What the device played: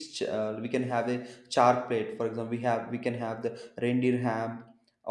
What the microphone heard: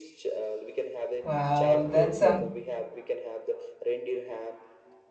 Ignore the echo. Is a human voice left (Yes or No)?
Yes